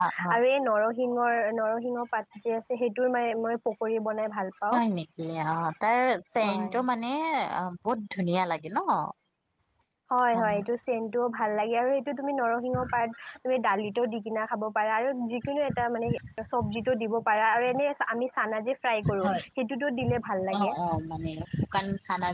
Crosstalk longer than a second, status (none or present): none